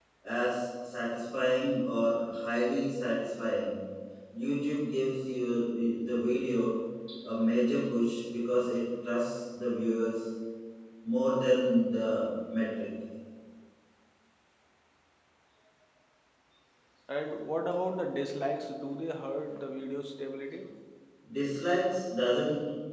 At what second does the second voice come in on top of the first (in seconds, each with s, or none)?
none